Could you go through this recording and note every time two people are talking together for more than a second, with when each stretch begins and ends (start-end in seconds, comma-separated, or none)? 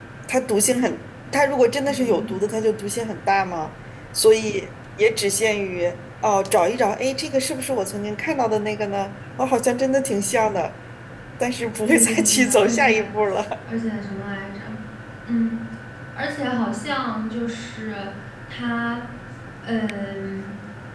11.8-13.1